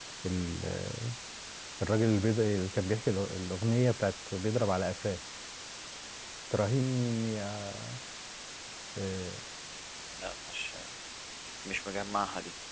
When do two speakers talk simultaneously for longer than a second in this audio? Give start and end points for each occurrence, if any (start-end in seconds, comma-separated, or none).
none